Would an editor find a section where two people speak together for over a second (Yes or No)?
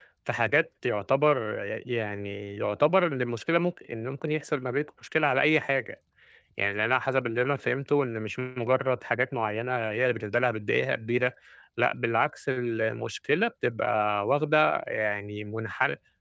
No